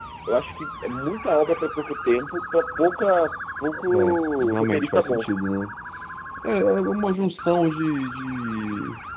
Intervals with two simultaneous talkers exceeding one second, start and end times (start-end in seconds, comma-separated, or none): 3.9-5.2